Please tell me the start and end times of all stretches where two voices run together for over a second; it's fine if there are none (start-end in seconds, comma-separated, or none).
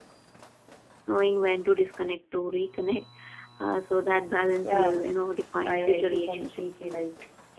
5.7-6.9